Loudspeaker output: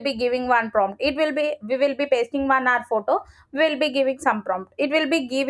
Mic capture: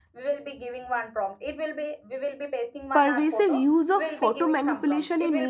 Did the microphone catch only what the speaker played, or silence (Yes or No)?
No